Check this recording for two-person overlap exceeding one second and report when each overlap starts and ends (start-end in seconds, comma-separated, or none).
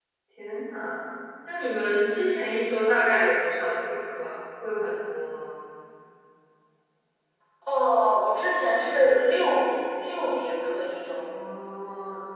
none